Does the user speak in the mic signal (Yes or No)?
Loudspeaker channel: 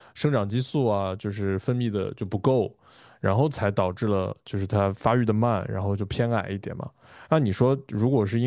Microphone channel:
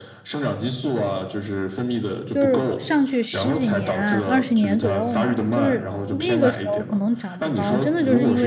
Yes